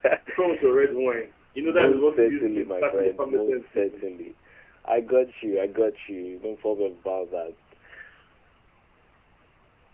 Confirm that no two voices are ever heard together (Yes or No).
No